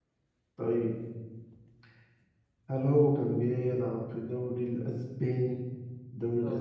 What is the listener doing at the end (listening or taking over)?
taking over